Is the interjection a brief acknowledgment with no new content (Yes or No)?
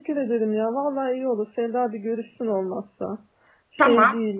No